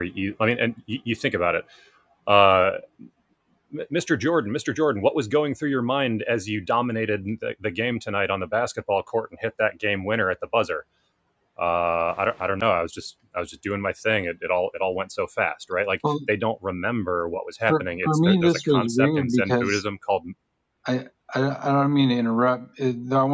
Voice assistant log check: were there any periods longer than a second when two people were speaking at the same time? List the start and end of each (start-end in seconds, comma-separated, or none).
17.7-19.8